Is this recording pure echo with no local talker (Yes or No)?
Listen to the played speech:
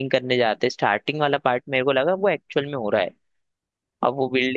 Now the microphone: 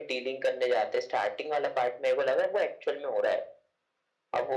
Yes